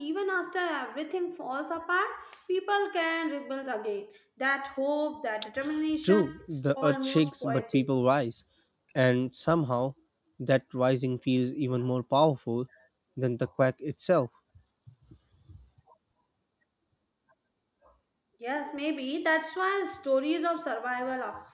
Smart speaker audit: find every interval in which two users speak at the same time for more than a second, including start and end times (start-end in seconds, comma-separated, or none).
6.0-7.9